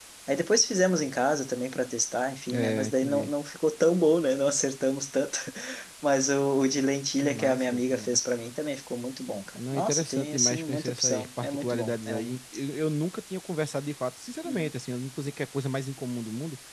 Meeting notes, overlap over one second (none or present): present